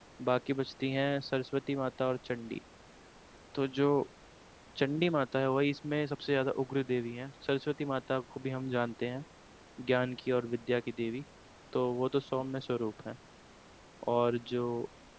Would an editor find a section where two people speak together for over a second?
No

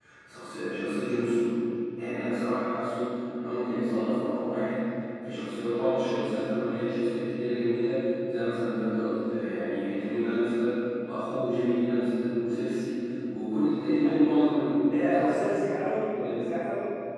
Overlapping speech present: Yes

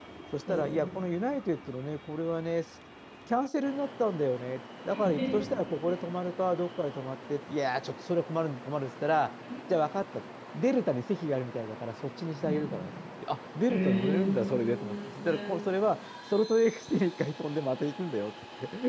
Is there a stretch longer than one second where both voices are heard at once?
Yes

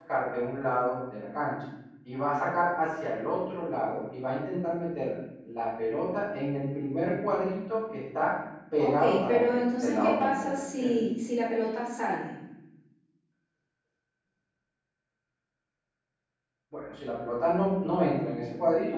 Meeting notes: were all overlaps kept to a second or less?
No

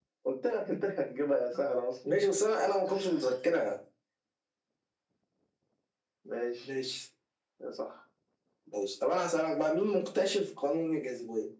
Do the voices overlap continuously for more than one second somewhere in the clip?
No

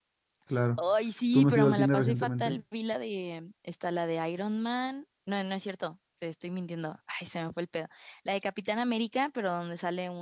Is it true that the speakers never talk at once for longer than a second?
No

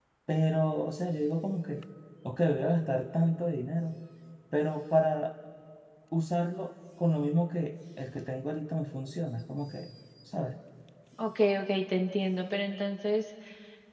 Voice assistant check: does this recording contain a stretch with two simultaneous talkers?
No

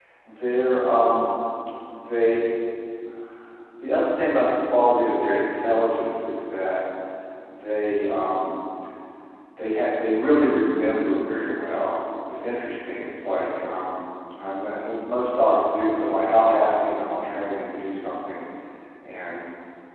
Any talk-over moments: No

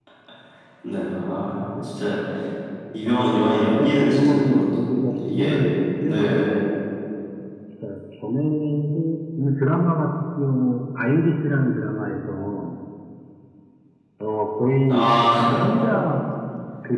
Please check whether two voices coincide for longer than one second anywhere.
Yes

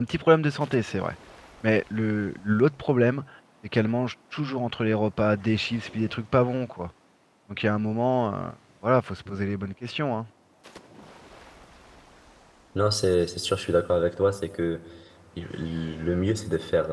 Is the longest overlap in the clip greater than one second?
No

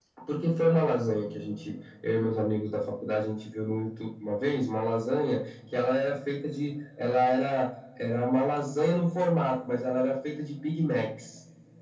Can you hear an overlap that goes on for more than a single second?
No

